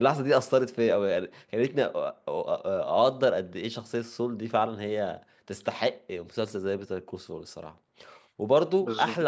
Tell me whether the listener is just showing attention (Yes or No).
Yes